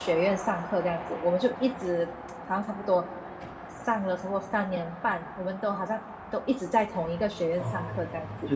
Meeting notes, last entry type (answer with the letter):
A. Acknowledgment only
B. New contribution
B